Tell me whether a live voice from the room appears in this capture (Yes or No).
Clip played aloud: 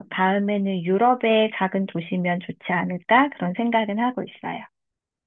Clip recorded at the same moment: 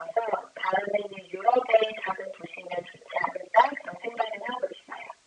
No